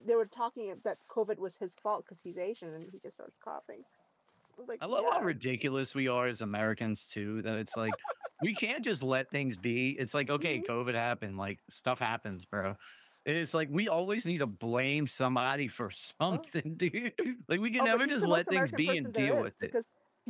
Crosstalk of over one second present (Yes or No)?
Yes